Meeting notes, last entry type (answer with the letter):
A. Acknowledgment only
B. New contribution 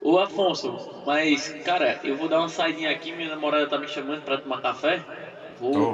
B